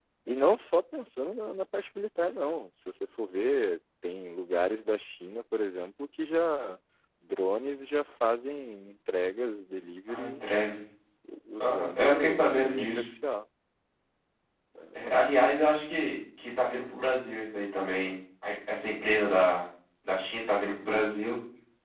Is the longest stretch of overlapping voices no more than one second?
No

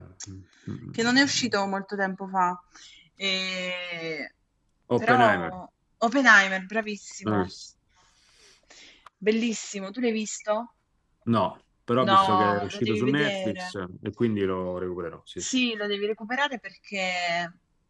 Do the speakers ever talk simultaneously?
Yes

